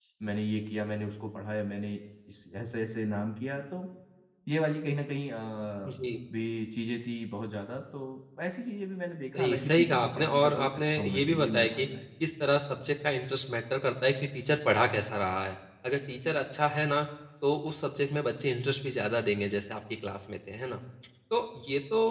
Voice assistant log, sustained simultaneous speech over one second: present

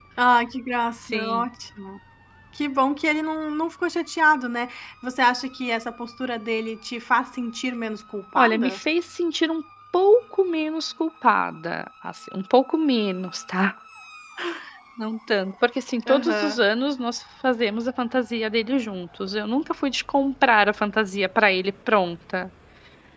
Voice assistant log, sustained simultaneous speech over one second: none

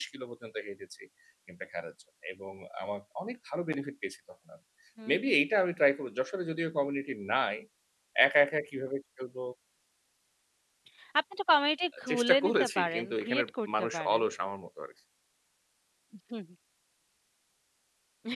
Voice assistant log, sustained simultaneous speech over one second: present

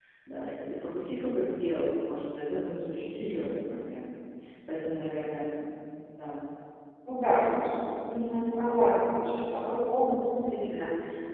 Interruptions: none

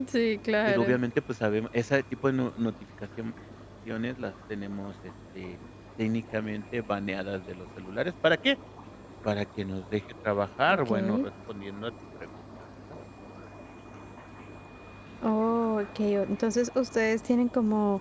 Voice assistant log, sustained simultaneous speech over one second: none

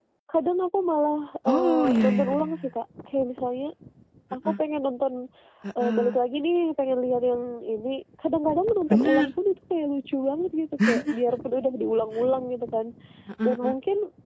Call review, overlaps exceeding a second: present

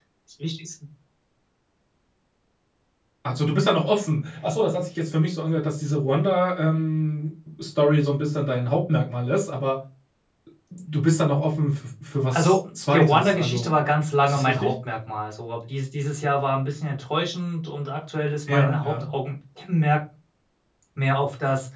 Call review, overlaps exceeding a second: present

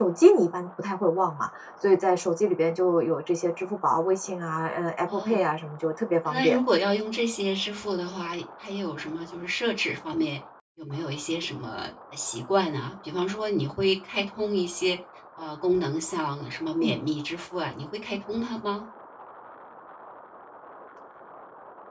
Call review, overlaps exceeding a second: none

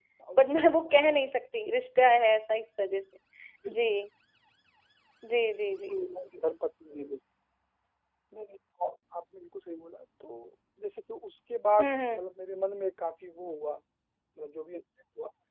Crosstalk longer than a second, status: none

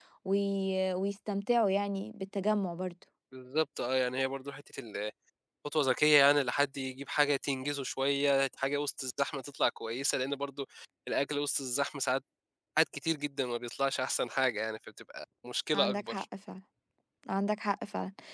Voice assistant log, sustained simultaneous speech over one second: none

